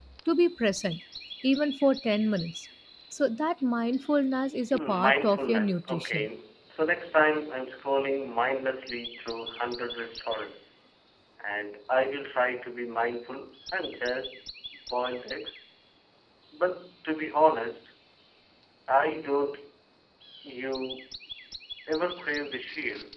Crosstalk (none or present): present